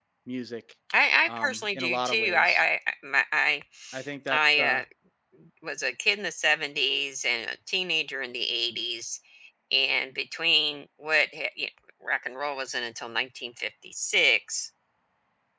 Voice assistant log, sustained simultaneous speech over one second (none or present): present